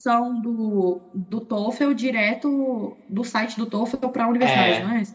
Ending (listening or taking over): taking over